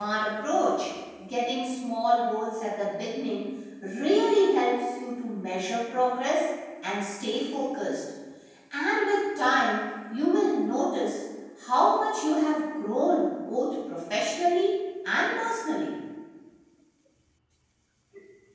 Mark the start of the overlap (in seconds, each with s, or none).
none